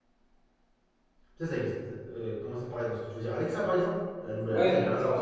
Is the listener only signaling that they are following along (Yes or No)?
No